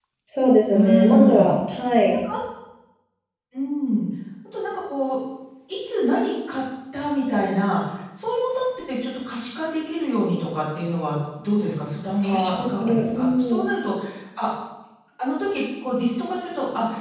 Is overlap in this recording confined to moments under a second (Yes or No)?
No